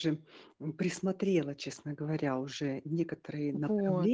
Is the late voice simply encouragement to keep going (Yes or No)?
Yes